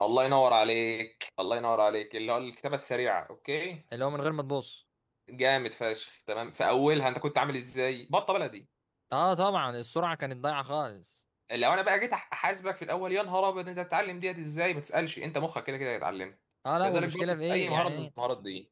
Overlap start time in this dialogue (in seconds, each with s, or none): 16.8 s